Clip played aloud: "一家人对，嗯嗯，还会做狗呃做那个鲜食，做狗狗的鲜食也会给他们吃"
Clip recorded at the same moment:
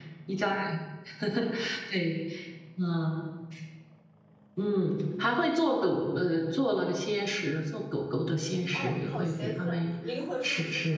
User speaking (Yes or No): Yes